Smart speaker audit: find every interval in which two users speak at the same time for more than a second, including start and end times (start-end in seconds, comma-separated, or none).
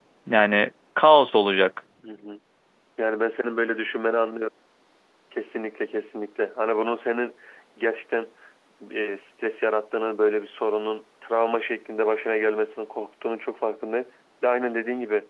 none